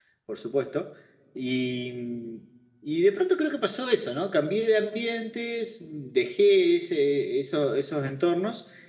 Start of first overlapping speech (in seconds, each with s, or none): none